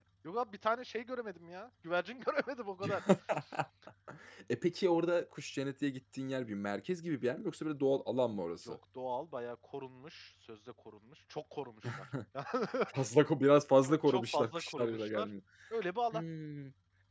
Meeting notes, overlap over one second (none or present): present